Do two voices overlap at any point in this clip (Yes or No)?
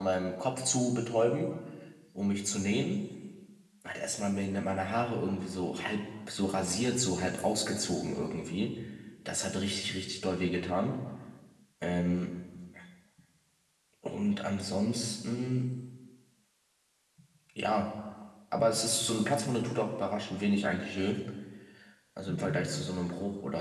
No